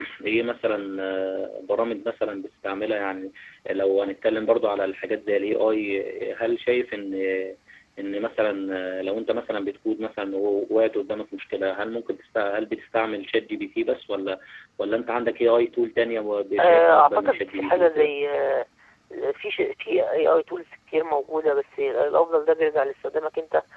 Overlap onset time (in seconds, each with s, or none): 16.6 s